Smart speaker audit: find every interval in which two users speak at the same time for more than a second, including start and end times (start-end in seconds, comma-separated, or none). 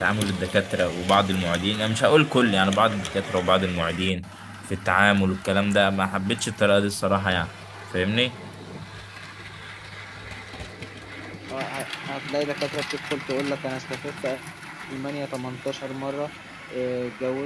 none